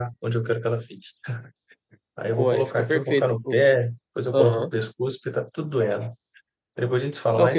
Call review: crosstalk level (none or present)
present